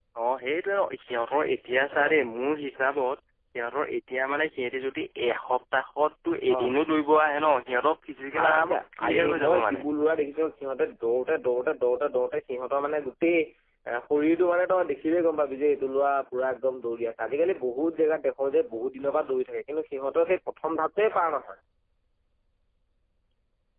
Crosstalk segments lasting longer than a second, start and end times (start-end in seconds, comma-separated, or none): 8.4-9.7